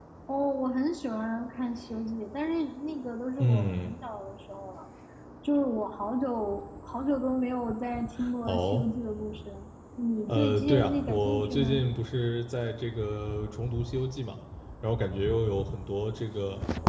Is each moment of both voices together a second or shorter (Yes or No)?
No